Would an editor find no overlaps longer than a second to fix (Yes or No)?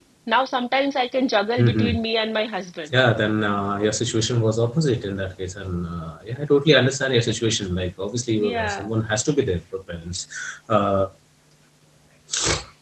Yes